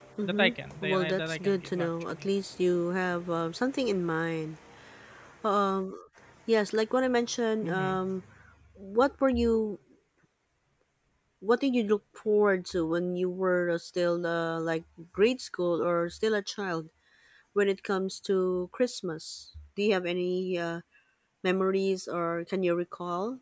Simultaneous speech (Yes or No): Yes